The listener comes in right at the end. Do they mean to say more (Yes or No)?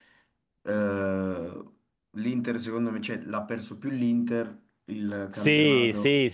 Yes